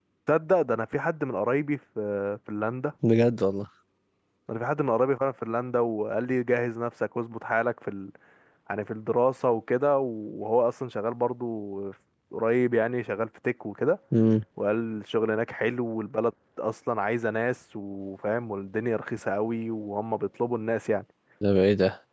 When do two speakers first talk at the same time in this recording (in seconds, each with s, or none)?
none